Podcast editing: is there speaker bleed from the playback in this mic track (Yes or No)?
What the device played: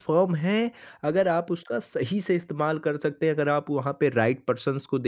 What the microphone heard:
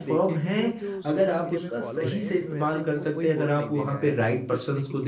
Yes